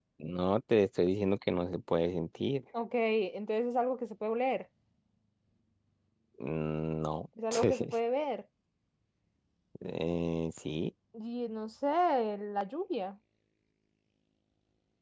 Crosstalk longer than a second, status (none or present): none